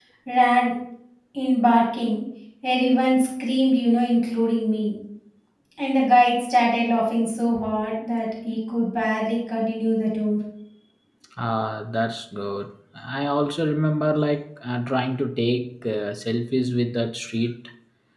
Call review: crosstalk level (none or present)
none